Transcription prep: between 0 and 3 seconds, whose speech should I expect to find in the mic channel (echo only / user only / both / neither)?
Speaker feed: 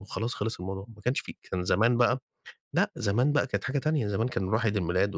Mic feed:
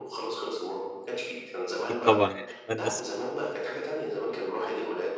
both